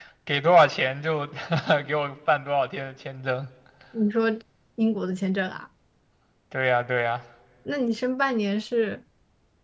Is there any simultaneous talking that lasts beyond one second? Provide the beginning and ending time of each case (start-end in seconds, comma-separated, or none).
none